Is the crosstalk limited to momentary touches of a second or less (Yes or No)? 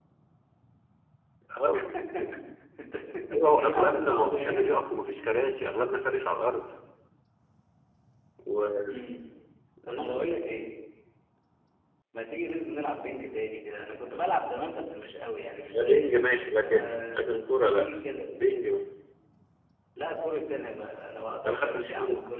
No